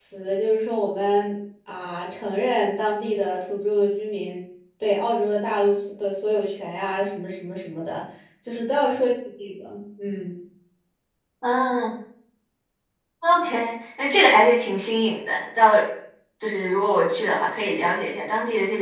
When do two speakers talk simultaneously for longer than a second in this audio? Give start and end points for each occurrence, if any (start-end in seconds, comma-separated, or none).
none